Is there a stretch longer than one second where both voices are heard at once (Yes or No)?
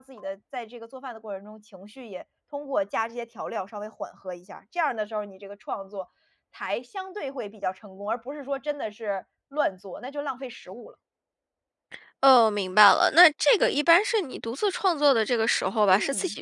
No